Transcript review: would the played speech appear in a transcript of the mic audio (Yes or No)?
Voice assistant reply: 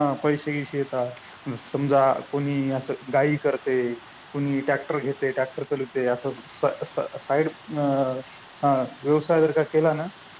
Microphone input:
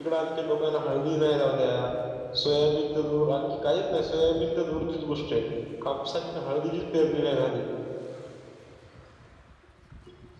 No